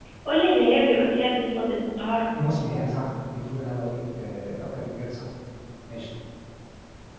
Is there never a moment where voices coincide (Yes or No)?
Yes